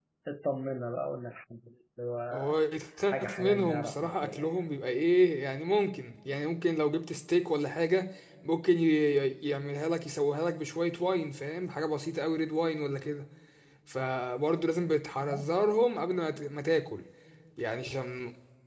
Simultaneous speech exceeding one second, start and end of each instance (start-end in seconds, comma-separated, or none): 3.1-4.6